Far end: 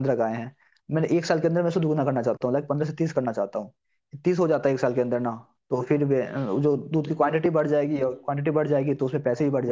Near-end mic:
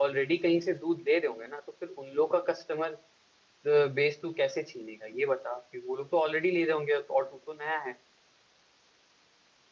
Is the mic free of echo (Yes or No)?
Yes